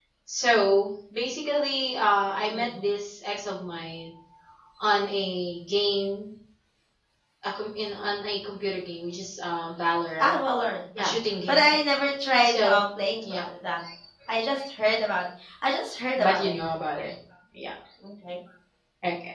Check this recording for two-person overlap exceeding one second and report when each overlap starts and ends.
none

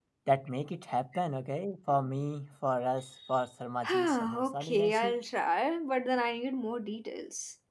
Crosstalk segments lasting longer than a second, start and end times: 3.9-5.2

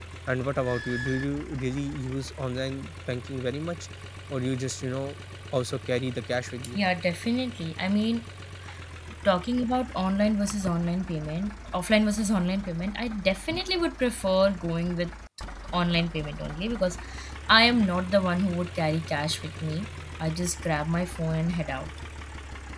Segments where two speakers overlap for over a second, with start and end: none

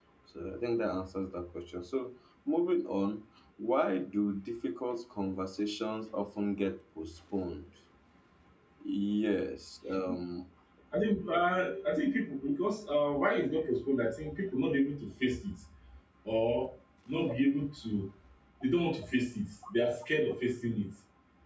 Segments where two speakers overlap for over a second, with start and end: none

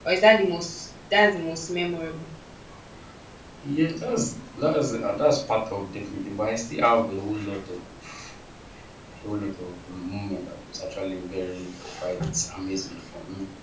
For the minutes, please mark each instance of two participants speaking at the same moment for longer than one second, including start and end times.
none

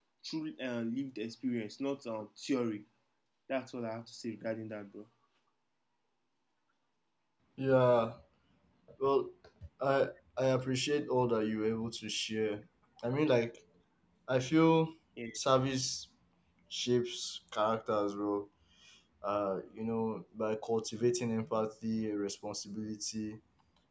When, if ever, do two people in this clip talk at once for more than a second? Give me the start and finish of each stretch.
none

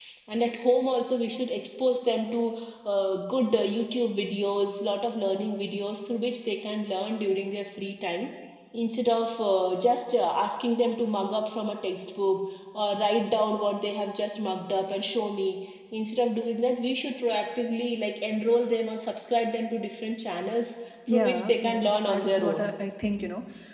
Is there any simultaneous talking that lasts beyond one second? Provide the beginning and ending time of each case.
21.1-22.7

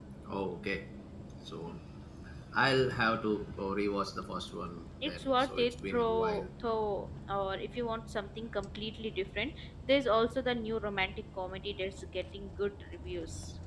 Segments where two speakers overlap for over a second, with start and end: 5.0-6.4

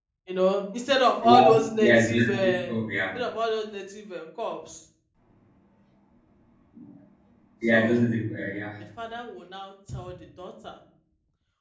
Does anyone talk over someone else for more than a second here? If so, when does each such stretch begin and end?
1.2-2.7

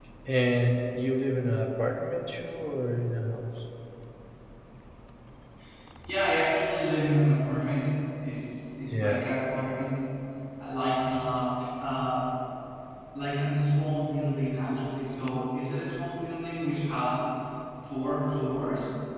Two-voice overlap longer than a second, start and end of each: none

